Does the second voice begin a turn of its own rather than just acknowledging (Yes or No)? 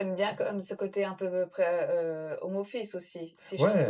Yes